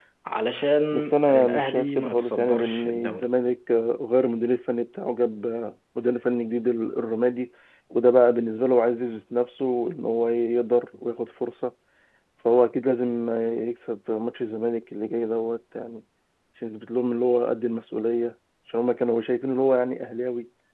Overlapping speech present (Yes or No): Yes